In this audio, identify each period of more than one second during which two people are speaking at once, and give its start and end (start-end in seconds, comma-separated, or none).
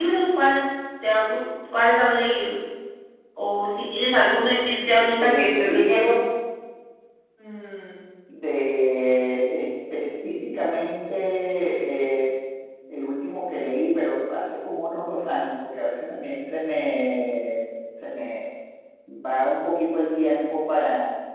4.6-6.1